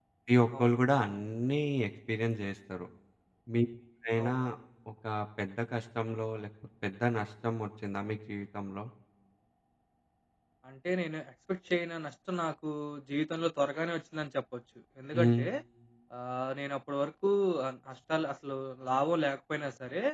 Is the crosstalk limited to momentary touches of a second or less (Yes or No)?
Yes